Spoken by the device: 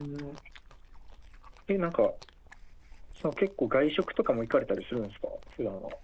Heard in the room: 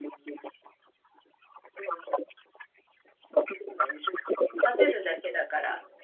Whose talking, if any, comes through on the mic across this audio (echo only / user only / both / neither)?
both